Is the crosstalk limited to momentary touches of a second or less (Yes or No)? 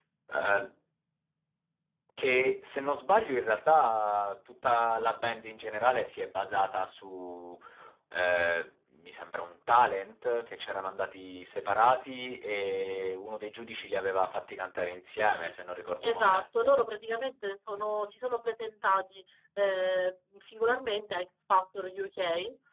Yes